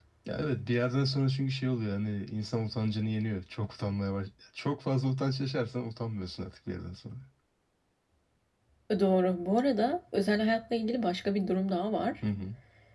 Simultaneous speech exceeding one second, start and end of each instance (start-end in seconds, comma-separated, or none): none